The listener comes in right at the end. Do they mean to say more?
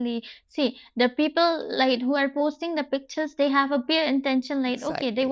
No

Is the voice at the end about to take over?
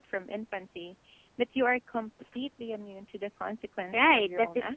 Yes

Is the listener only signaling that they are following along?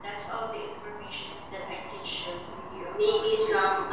No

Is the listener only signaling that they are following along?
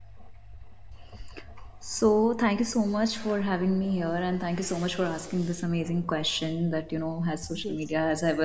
Yes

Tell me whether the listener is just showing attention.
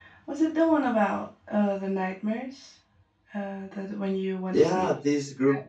No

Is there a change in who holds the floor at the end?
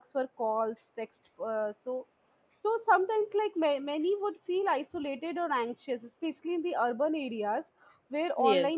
No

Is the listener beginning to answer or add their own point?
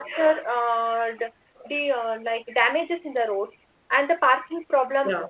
No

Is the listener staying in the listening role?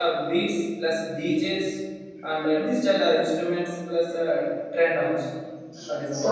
No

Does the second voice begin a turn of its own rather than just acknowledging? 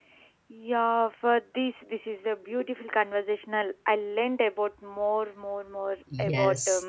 Yes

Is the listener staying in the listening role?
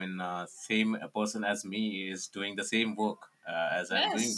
No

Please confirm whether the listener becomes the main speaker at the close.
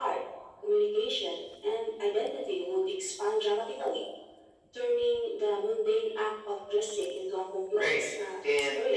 Yes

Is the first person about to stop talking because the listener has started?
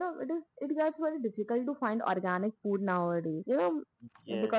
No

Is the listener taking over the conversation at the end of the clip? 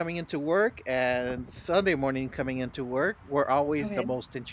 No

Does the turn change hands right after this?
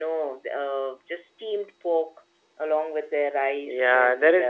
Yes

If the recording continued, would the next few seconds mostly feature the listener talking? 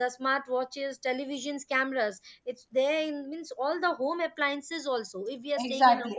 Yes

